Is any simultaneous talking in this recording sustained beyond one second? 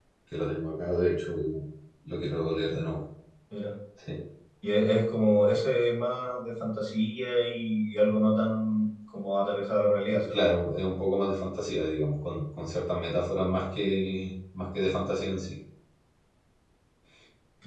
No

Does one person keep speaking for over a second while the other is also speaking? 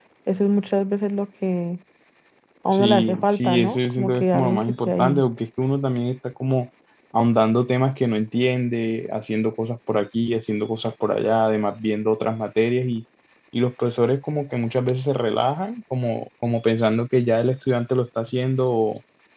Yes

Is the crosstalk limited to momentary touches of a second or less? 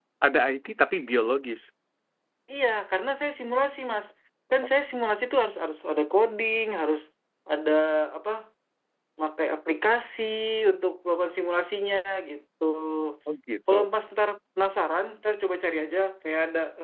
Yes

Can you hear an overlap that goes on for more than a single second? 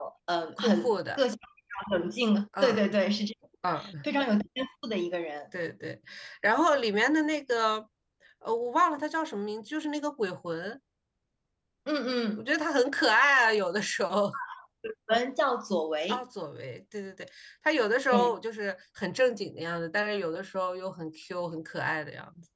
No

